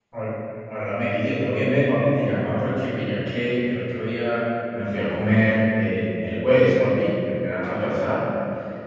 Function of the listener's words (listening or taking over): listening